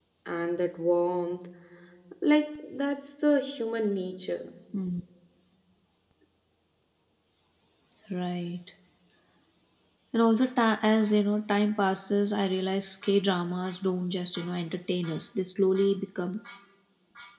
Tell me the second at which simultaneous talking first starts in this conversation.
none

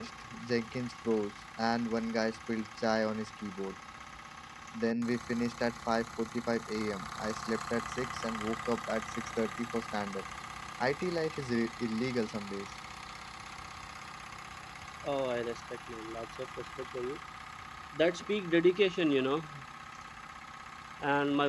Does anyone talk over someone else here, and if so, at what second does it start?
none

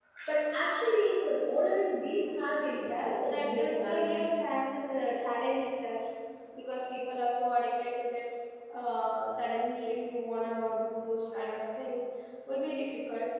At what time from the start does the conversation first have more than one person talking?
2.8 s

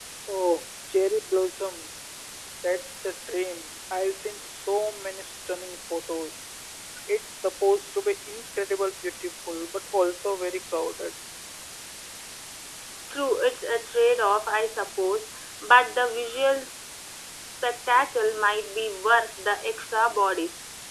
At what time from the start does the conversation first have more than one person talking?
none

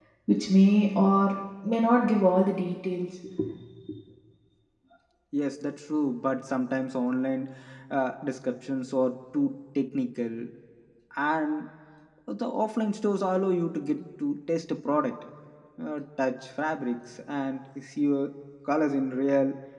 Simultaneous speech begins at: none

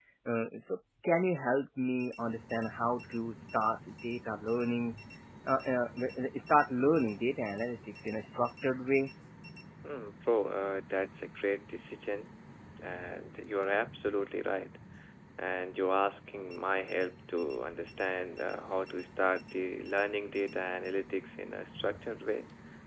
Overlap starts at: none

